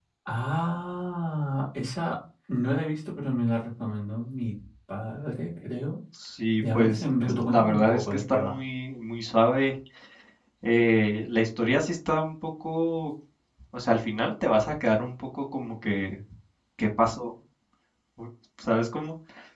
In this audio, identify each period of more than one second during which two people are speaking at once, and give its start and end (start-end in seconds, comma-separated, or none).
6.6-8.6